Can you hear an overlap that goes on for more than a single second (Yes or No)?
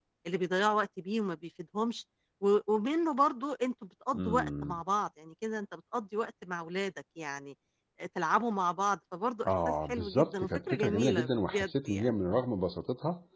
Yes